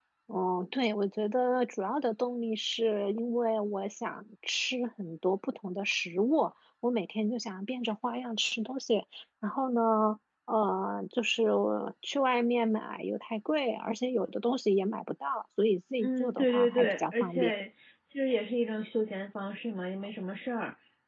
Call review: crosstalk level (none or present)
present